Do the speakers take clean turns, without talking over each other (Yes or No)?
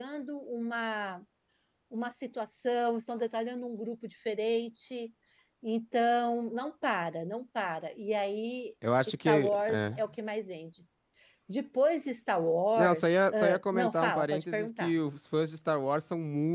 No